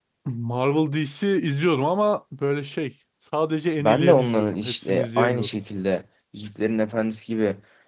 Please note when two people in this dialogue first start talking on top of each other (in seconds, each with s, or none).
3.8 s